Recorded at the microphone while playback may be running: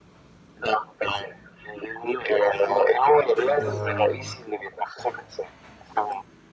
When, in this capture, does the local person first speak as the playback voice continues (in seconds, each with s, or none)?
3.6 s